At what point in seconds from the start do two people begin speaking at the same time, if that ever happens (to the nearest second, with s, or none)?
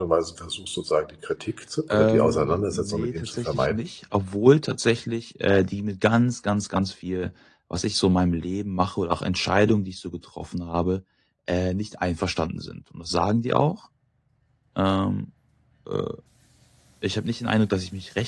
2 s